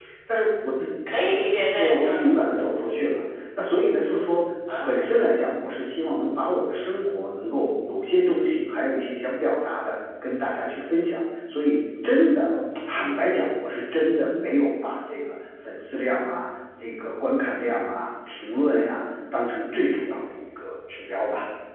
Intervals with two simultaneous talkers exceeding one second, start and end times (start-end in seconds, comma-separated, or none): none